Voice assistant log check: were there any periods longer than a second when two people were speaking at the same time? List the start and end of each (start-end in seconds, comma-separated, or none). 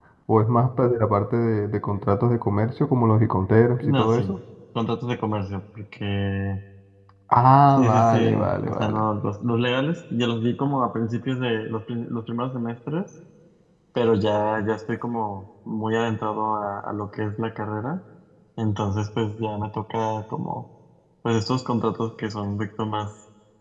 7.8-9.0